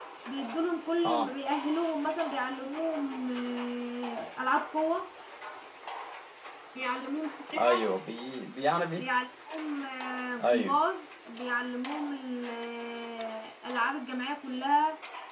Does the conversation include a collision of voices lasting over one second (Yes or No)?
No